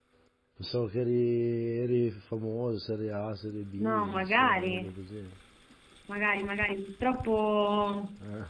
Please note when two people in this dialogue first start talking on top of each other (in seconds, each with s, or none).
3.8 s